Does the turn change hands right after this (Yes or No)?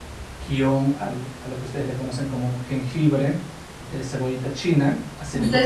Yes